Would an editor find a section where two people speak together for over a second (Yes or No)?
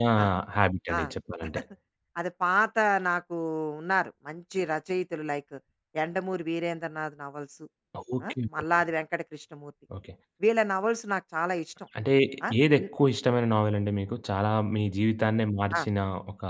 No